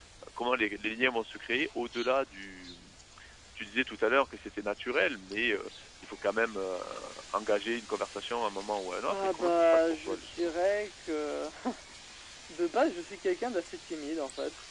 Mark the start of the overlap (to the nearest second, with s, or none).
9 s